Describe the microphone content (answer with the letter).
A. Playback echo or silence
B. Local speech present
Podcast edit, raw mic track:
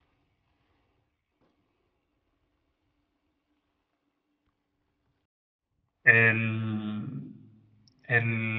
B